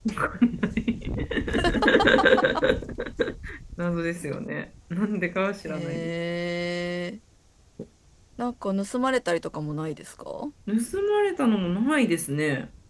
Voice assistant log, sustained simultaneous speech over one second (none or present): none